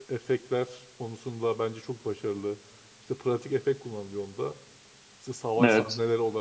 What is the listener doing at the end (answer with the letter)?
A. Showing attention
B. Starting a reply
A